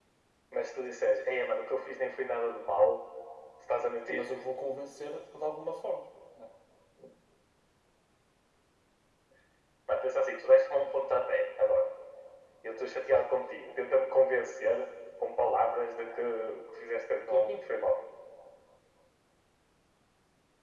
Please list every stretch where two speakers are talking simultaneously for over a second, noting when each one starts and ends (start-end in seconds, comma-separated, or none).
none